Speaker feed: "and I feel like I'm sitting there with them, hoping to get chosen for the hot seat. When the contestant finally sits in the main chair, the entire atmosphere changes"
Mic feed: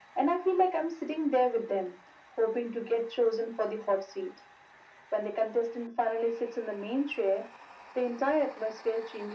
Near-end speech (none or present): none